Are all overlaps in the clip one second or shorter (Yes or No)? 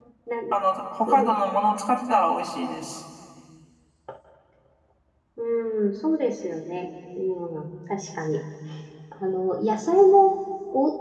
Yes